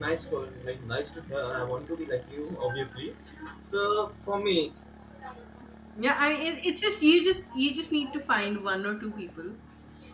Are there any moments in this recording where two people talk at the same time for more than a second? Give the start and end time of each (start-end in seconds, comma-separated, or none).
none